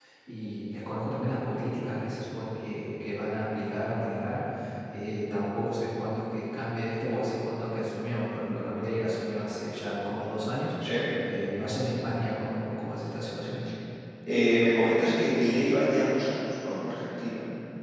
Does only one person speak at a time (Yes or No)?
Yes